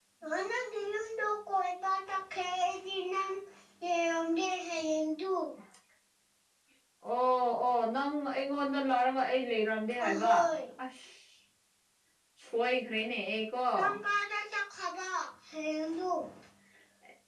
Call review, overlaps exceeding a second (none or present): none